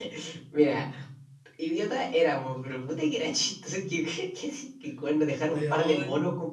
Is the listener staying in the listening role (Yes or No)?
Yes